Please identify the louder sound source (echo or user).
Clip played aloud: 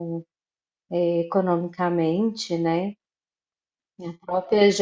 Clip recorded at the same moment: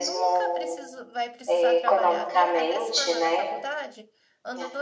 echo